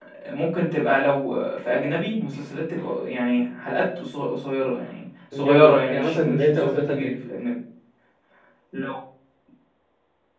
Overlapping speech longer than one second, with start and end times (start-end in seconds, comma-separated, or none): 5.4-7.1